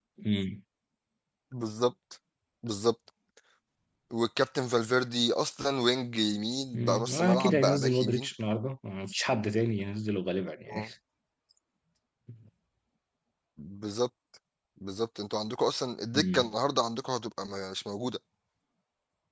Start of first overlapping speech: 6.7 s

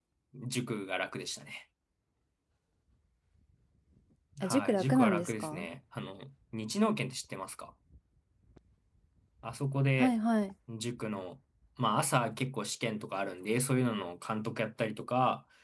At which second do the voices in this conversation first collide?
4.4 s

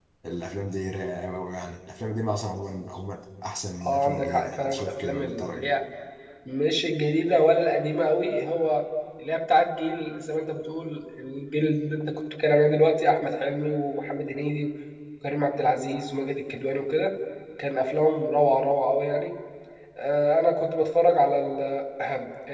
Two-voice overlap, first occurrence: 3.8 s

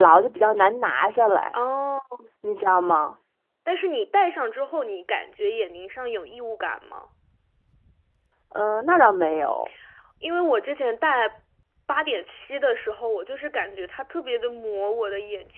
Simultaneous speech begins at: none

